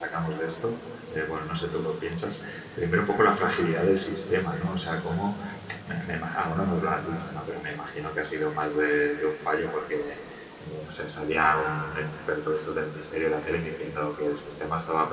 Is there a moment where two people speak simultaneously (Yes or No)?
No